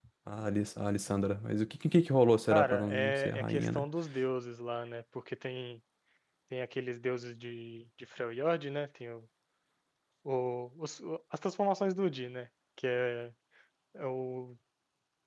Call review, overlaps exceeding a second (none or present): present